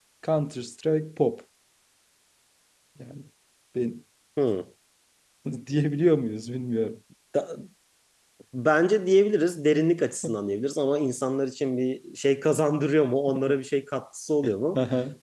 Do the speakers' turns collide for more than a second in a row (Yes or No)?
No